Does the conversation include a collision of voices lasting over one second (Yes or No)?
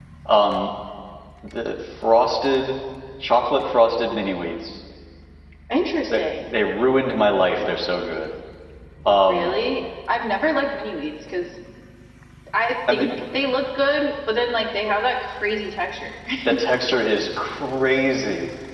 No